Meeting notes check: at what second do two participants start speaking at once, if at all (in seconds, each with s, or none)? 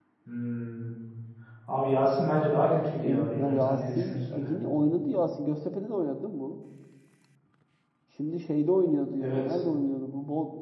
3.0 s